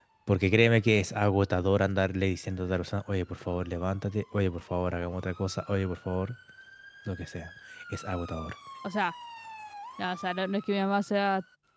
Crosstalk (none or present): none